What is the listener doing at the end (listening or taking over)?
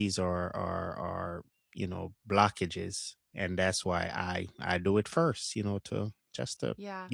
taking over